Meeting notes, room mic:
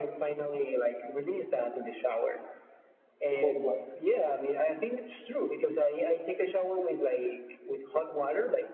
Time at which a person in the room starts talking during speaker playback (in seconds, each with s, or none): 3.3 s